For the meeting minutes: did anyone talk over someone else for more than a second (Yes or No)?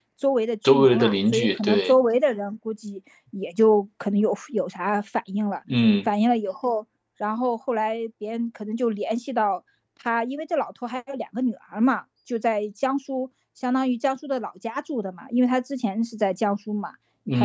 Yes